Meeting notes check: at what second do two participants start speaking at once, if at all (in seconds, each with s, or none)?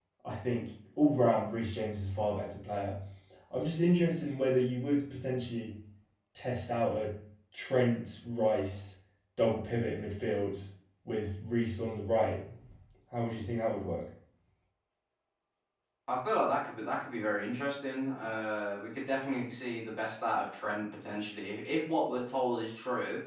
none